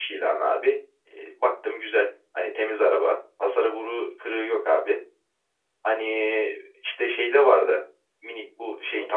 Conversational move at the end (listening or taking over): listening